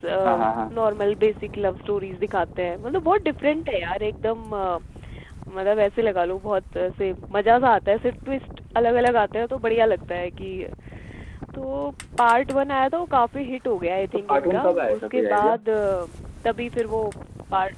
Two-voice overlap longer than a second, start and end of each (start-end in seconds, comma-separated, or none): 14.1-15.6